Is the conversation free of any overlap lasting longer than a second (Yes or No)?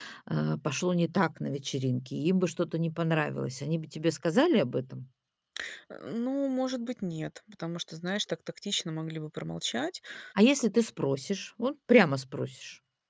Yes